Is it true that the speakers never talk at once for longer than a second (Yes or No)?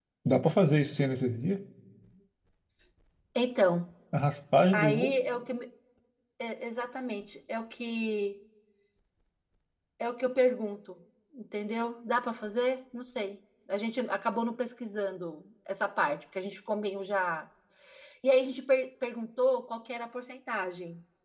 Yes